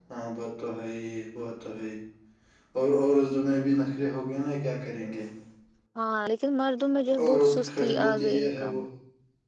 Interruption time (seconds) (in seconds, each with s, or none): 7.2 s